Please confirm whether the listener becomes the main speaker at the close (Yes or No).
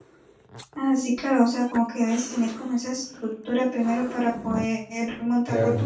Yes